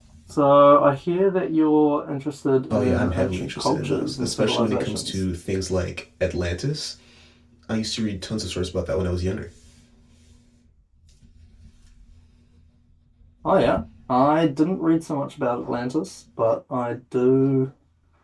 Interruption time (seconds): 2.7 s

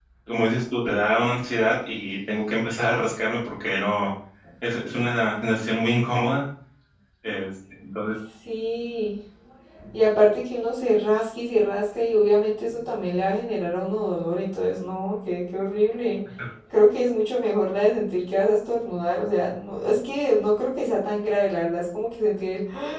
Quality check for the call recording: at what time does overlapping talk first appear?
none

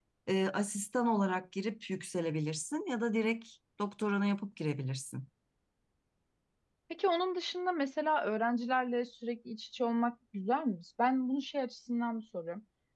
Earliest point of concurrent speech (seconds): none

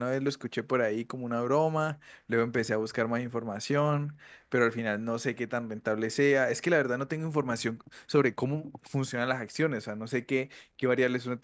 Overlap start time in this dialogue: none

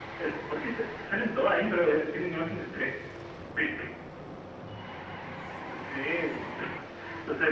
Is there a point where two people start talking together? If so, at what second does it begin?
none

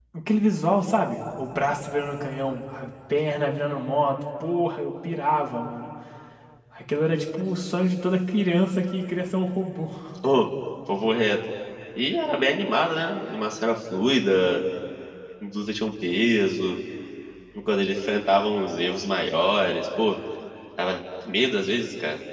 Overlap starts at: none

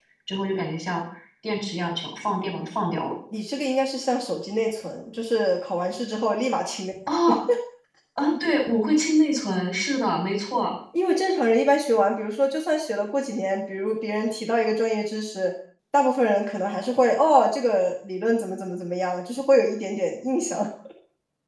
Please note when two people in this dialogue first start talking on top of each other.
none

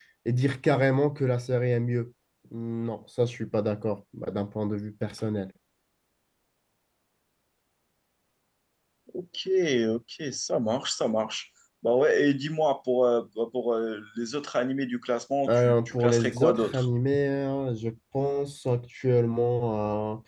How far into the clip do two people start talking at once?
15.5 s

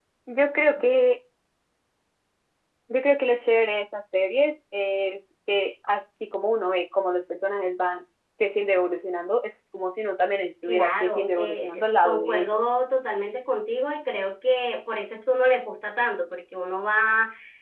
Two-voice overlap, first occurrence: 10.7 s

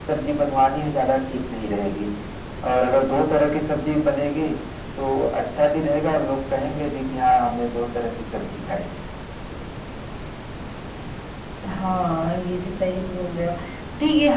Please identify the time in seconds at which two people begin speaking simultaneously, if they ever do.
none

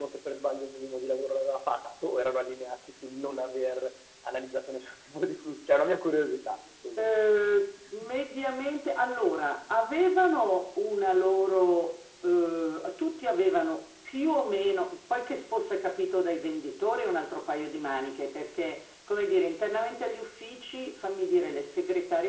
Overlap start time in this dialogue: none

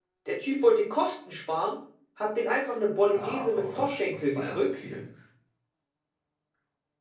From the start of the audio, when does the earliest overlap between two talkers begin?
3.1 s

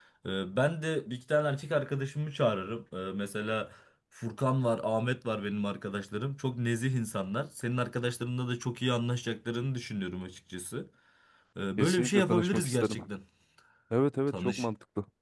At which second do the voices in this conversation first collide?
11.8 s

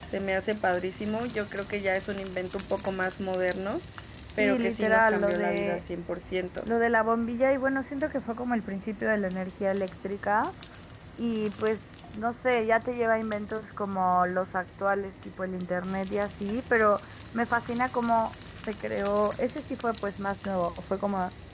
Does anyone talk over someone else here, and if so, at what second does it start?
4.4 s

